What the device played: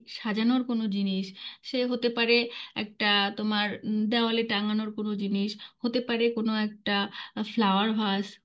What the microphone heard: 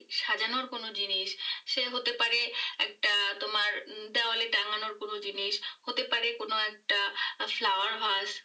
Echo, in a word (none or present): present